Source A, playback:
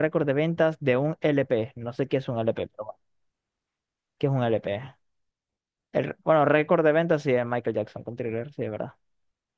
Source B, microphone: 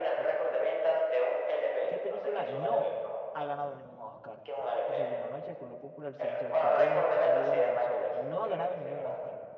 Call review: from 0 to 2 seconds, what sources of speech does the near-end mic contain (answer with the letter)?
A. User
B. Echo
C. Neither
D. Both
D